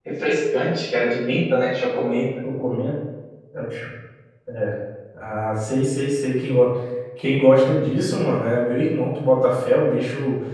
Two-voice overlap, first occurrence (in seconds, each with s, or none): none